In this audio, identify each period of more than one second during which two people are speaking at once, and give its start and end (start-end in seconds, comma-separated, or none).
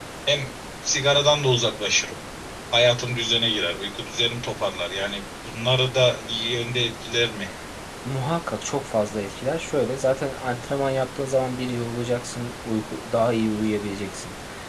none